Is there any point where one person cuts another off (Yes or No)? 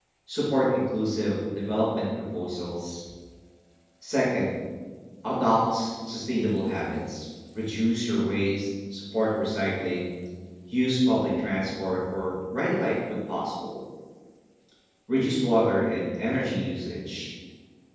No